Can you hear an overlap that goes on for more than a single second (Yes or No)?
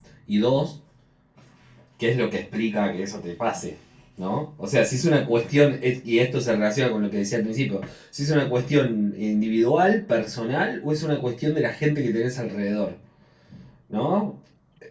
No